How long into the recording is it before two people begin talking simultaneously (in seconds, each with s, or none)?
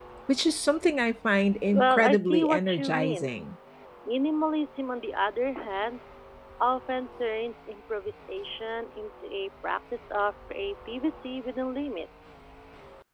1.7 s